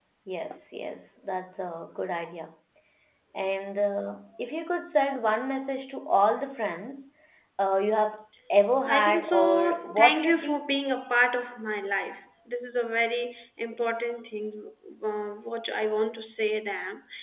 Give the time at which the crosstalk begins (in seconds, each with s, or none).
8.9 s